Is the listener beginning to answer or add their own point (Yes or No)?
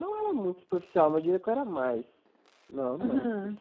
No